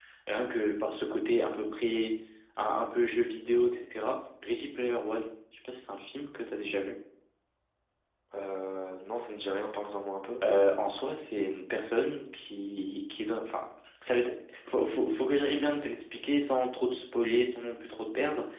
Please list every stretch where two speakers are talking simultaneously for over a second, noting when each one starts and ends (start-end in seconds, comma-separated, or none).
none